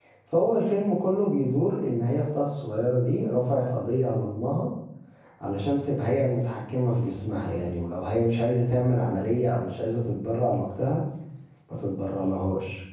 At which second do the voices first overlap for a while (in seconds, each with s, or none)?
none